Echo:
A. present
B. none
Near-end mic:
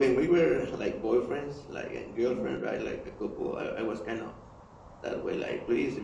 A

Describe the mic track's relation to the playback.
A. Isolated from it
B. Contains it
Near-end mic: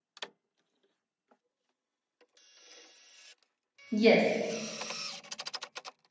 A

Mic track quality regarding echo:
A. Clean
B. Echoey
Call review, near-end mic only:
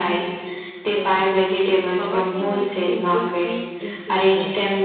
B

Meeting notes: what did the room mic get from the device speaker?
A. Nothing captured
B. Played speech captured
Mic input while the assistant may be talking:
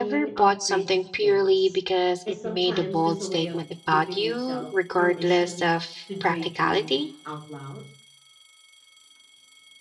B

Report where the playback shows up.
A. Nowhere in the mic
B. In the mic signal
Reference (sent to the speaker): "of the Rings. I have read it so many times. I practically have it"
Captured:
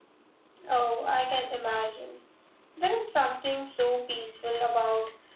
A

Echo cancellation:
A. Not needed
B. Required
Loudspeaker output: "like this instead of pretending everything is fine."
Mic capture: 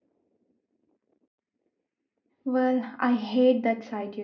A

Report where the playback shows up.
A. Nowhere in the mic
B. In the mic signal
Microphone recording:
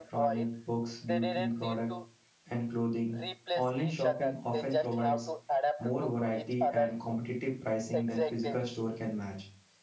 B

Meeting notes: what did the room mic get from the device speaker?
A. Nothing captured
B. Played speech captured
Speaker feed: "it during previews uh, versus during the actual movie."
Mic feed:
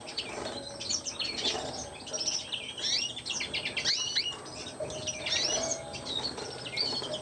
A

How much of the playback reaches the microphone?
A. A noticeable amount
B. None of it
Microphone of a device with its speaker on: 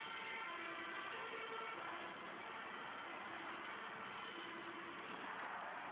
B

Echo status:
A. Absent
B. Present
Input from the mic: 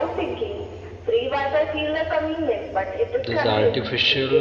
B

